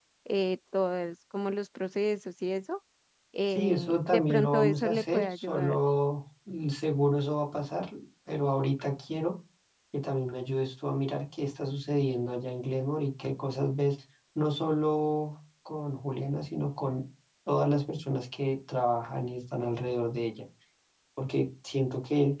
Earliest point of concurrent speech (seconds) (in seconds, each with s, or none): 3.5 s